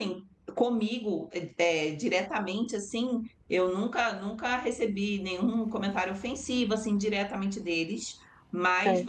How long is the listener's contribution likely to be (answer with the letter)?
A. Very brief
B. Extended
A